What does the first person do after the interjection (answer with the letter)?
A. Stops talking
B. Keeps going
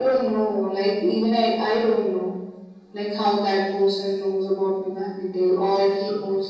B